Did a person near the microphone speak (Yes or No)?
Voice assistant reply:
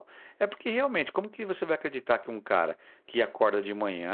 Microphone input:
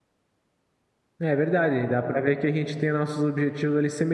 Yes